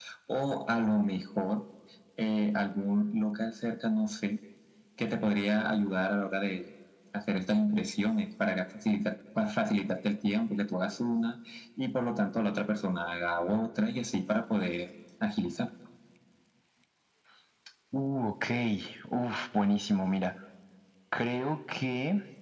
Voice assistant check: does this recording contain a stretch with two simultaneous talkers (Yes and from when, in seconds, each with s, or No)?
No